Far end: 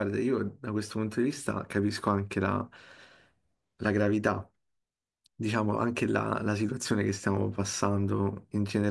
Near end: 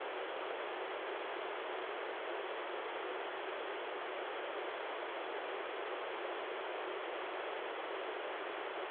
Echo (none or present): none